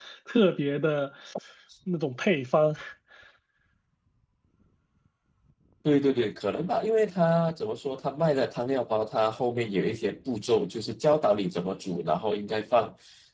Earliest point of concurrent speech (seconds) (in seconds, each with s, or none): none